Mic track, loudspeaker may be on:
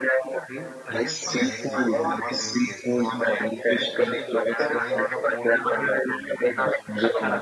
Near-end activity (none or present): present